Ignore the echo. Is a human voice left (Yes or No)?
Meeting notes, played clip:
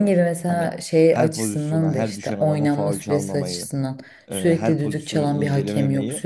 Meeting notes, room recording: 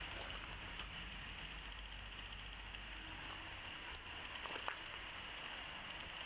No